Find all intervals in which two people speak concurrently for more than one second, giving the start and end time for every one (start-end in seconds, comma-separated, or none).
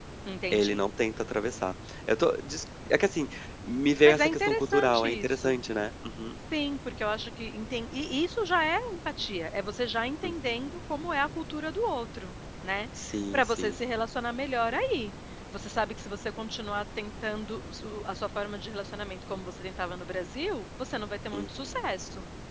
4.0-5.6